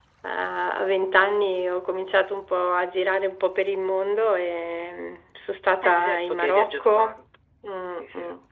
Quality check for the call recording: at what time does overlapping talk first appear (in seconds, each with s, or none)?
5.8 s